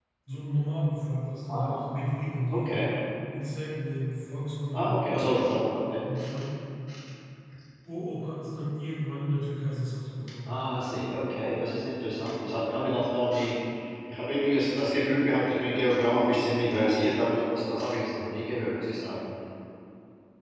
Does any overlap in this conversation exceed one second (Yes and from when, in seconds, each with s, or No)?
No